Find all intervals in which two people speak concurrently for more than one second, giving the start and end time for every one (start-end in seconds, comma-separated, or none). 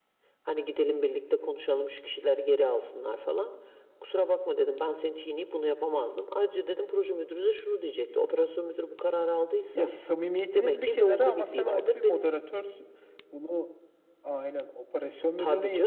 10.5-12.3